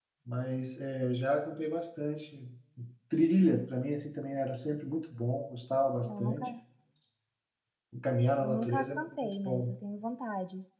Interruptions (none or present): present